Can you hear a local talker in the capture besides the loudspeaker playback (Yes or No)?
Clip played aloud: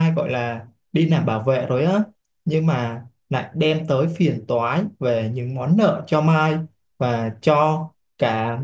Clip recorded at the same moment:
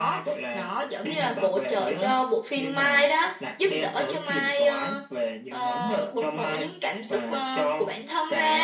Yes